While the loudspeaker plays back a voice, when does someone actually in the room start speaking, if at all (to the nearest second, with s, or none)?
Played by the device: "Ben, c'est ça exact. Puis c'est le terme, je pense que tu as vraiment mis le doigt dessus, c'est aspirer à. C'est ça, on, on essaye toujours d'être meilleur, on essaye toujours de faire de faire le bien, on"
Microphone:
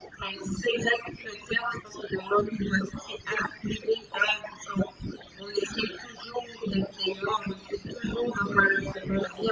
none